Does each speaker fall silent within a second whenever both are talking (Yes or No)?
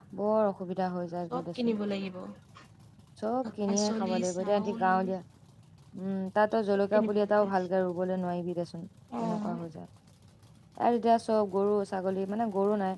No